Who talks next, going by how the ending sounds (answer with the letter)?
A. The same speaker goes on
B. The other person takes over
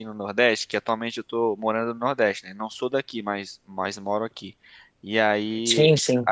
A